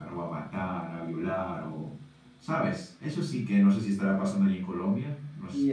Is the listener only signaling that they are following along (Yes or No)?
No